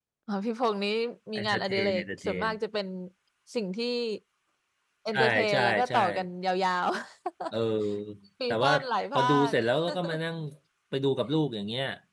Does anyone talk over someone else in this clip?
Yes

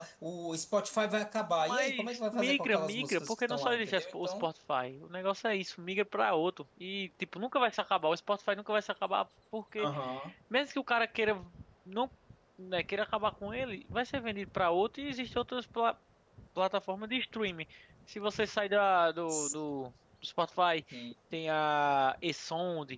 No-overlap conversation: No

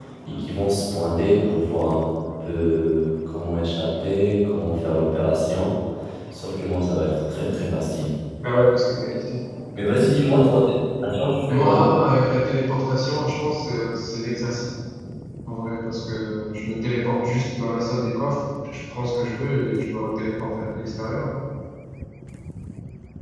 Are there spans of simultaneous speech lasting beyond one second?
No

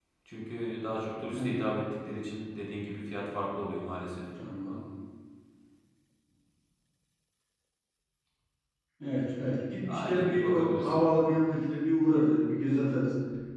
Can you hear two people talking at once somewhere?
Yes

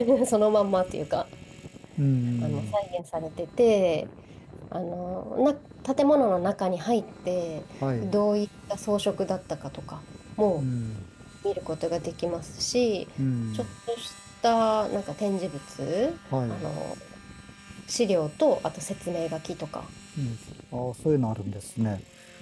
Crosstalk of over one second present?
No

